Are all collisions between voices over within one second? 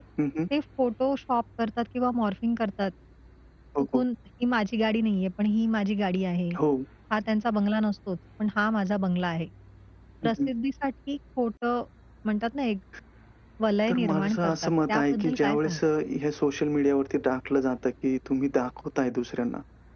No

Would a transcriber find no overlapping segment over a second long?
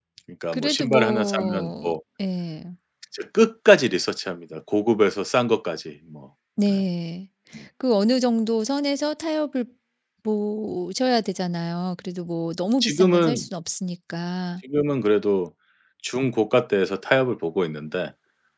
No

